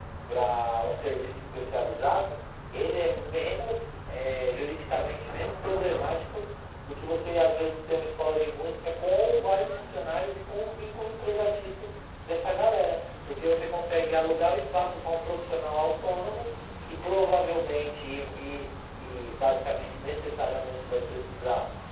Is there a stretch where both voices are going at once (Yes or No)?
No